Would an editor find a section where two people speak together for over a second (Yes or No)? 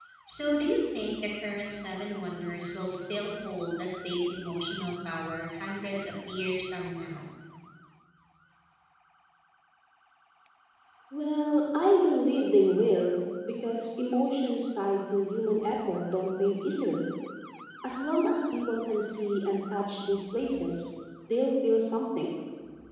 No